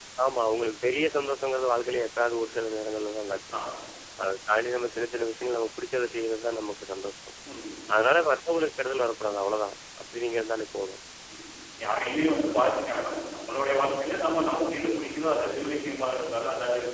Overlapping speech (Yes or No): No